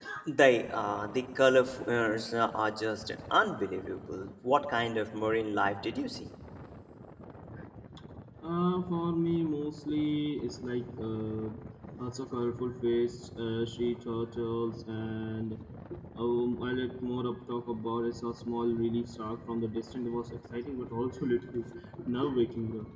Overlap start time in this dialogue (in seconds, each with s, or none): none